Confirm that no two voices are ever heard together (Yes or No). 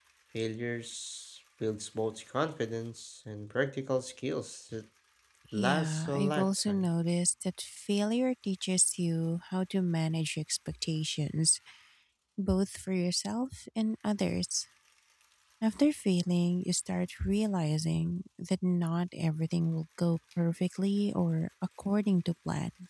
No